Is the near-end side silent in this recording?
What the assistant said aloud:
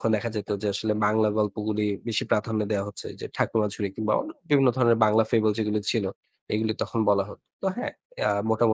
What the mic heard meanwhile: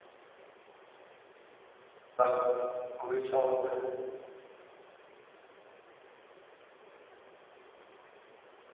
No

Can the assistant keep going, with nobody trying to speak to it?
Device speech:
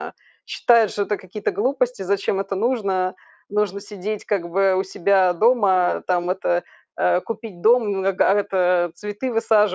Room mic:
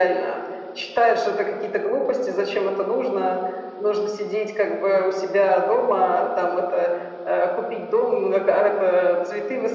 Yes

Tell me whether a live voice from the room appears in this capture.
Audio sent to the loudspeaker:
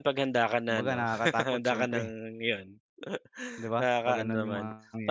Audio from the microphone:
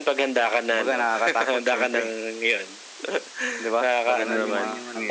Yes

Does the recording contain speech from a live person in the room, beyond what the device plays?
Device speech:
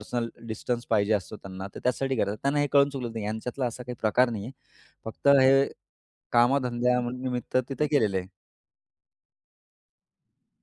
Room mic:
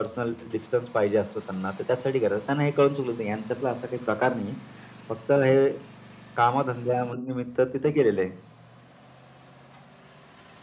No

